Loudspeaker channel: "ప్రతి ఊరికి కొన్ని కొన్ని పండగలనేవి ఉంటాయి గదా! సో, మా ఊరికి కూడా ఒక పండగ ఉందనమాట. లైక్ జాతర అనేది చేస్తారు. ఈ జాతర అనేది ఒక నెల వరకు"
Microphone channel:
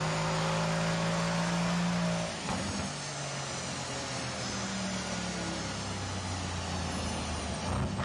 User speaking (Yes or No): No